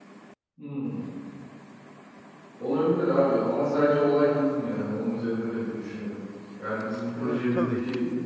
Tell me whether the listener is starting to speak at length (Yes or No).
No